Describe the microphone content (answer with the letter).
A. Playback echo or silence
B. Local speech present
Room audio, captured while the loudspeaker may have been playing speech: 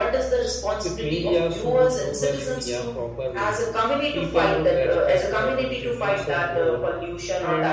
B